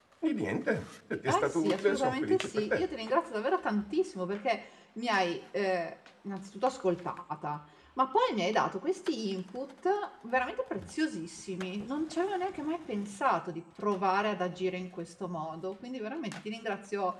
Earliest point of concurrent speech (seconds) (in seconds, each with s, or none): 1.3 s